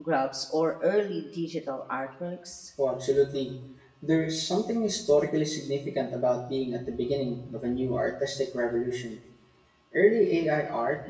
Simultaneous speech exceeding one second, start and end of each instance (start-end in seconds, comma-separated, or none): none